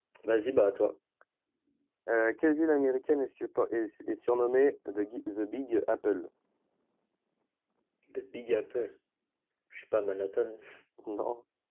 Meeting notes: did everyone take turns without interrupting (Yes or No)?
Yes